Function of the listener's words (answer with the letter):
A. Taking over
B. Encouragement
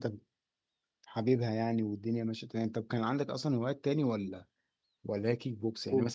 B